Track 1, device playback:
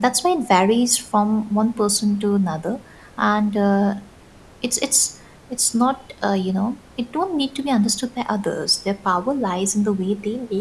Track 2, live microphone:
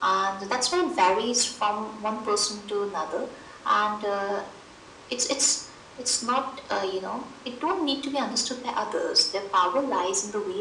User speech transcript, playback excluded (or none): none